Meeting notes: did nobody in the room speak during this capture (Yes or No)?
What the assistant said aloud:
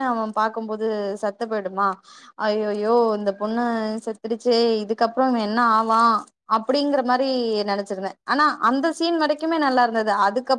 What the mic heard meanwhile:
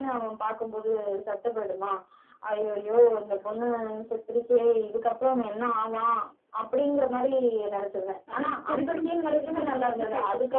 No